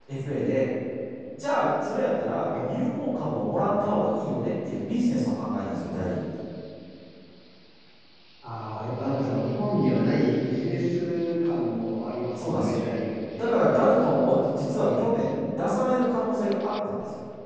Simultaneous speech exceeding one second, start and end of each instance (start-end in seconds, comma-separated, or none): none